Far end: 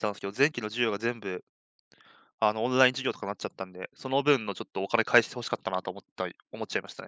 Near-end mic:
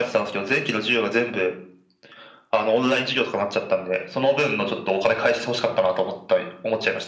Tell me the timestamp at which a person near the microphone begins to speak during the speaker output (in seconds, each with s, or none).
none